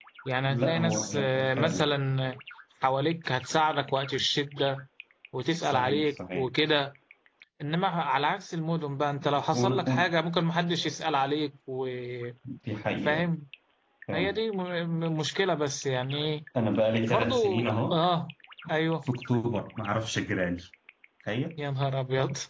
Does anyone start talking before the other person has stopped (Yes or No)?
Yes